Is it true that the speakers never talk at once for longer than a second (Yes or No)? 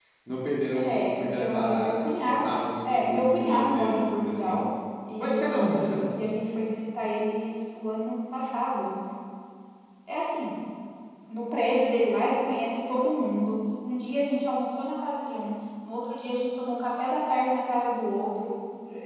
No